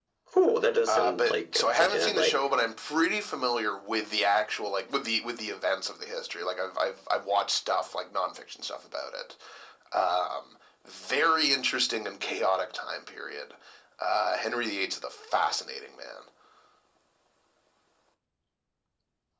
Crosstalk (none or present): present